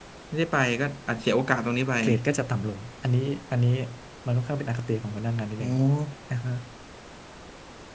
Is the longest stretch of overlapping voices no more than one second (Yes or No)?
Yes